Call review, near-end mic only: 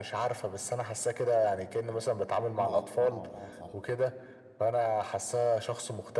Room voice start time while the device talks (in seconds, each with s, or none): 2.5 s